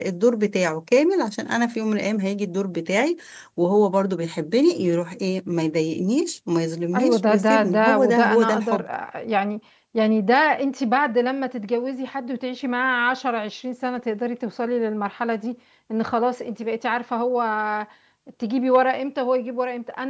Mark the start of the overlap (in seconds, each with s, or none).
6.9 s